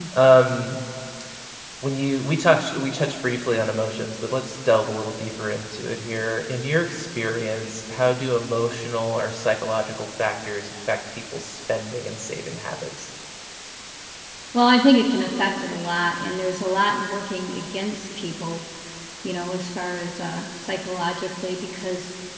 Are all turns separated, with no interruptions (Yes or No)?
Yes